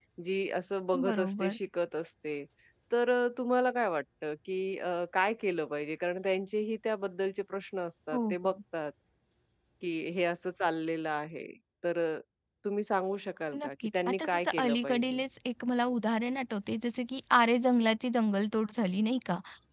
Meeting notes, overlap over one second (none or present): present